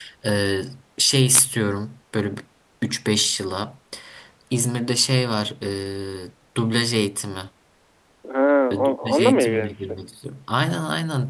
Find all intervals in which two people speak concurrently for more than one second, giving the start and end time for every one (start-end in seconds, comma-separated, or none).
8.7-10.0